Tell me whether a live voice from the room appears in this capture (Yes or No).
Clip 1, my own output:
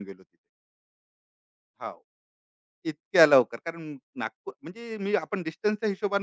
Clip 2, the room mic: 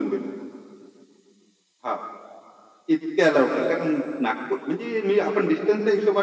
No